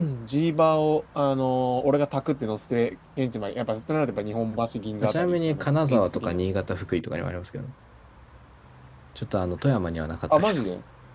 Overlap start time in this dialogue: 5.0 s

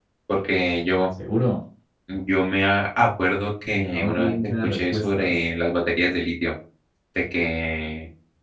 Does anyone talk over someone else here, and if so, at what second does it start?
3.6 s

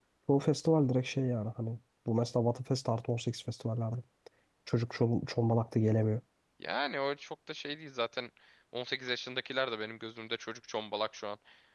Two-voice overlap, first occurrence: none

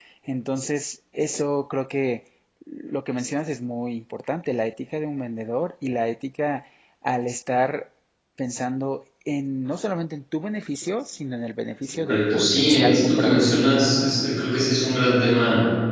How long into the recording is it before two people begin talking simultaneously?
11.9 s

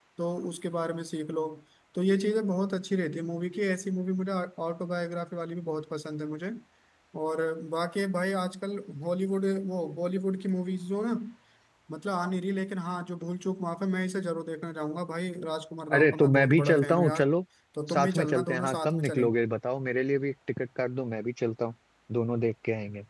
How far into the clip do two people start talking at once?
15.9 s

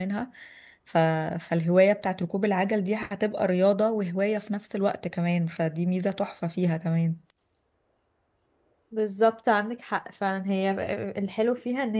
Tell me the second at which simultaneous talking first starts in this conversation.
none

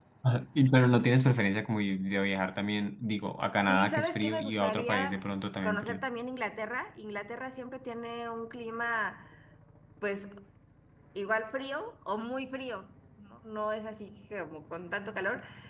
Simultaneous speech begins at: 3.7 s

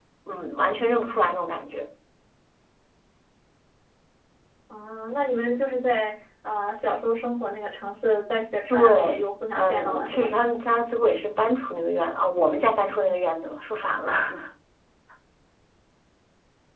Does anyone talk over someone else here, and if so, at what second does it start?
8.7 s

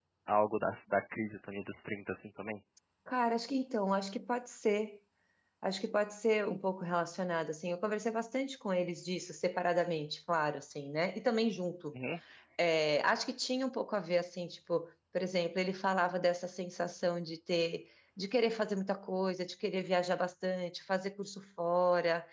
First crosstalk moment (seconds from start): none

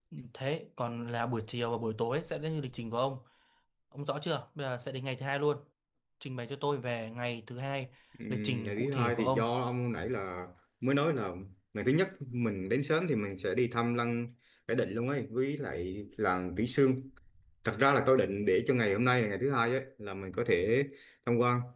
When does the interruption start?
8.3 s

